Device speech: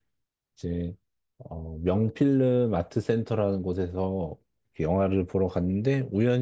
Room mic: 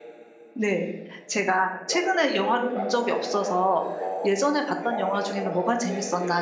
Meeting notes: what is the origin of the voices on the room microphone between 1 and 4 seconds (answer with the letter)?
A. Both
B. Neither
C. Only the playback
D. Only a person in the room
A